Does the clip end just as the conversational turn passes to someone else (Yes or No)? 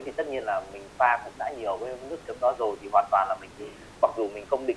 No